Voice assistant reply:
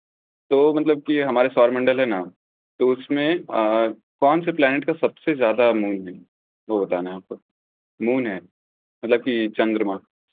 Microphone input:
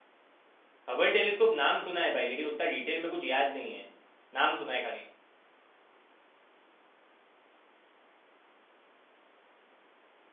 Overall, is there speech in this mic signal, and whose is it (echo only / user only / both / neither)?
user only